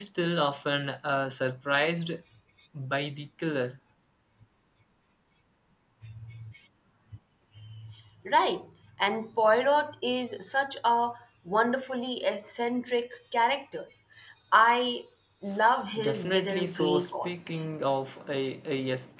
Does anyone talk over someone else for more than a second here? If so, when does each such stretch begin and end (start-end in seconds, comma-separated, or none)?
16.0-17.7